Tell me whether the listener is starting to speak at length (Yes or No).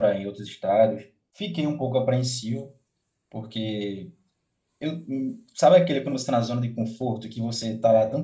No